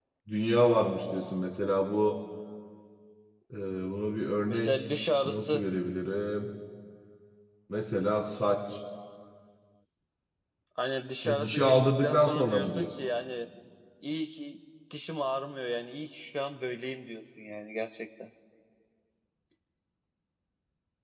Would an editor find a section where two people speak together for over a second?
Yes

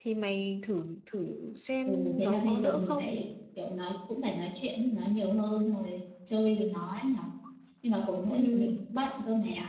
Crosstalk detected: Yes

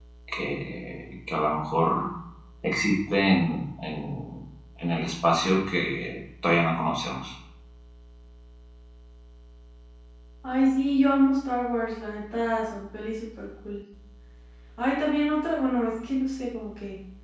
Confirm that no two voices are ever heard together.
Yes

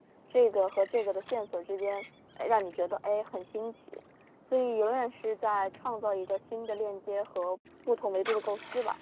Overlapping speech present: No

